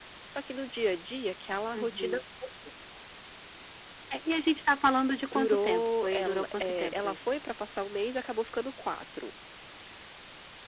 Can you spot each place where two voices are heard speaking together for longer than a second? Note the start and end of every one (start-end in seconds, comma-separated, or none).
5.3-7.3